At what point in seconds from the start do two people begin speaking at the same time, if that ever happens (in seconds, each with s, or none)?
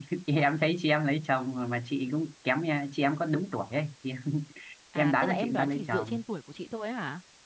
5.0 s